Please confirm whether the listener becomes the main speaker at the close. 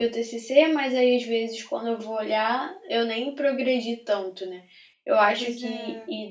No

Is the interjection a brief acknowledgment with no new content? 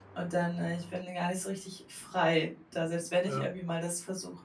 Yes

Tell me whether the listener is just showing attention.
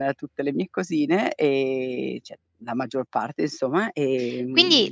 No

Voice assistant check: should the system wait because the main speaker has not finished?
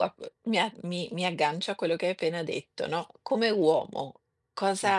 Yes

